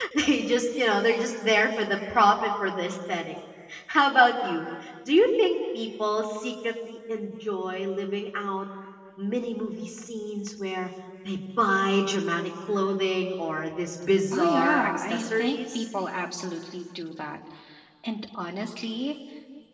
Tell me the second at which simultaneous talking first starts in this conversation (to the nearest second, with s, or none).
14 s